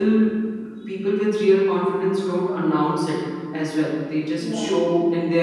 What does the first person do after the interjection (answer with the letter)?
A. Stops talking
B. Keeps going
B